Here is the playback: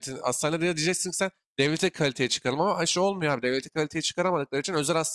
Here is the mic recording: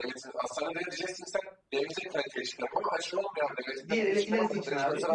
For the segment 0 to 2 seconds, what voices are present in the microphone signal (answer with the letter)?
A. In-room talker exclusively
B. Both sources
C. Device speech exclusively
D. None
C